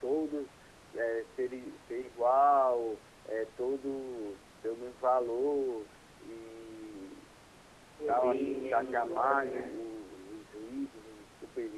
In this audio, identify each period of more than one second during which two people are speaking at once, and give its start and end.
8.1-9.6

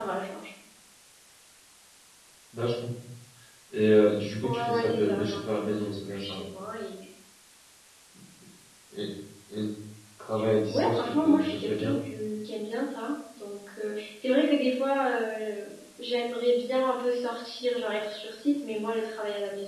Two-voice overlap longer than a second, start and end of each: 4.4-6.4, 10.7-12.0

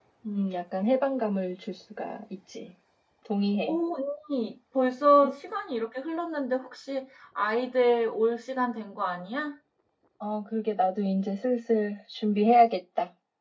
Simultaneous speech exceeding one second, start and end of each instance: none

